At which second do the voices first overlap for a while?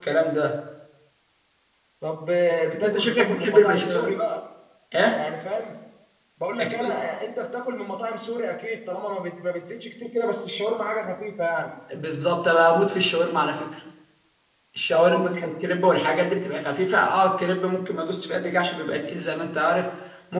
3 s

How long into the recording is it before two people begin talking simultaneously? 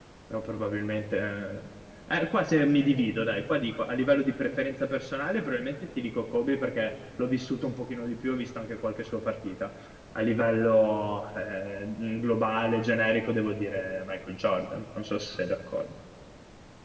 none

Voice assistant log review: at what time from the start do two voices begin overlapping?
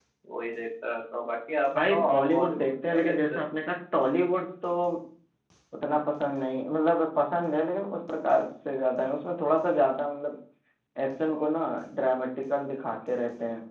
2 s

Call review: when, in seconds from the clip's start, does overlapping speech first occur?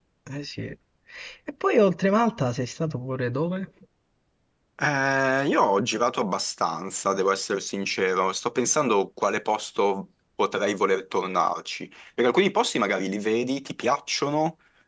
none

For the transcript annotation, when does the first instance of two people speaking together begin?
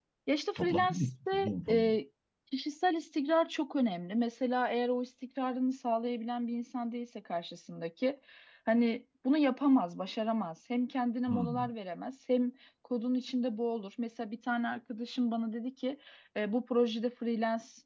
1 s

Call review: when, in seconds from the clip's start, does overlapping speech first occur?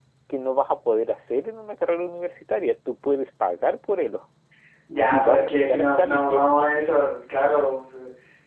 5 s

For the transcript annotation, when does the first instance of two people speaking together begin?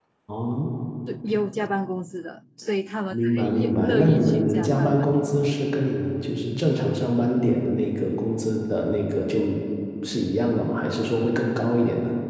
3 s

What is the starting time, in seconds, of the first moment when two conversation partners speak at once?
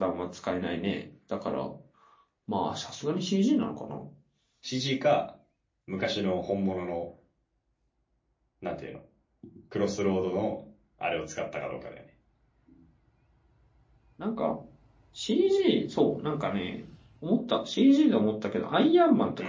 none

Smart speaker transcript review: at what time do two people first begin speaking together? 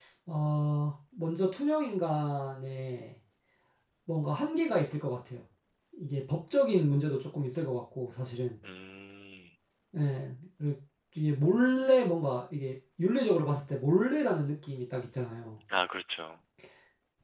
none

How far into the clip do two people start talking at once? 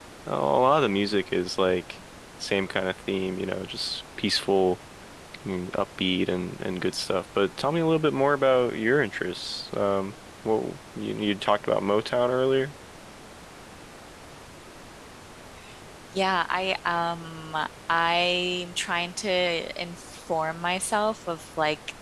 none

